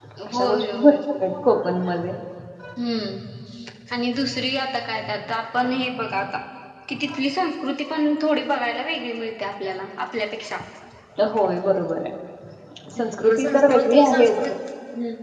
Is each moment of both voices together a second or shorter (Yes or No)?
No